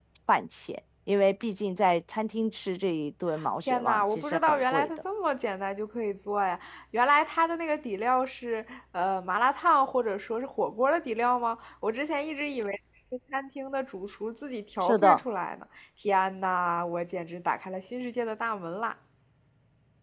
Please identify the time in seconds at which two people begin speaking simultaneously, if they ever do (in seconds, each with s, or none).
3.6 s